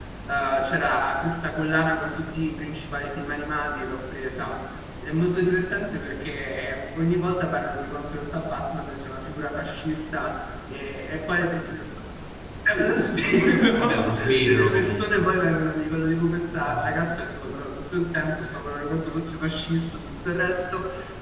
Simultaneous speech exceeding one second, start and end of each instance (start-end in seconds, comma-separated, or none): 13.8-15.3